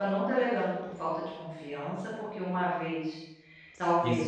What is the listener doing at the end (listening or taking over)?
taking over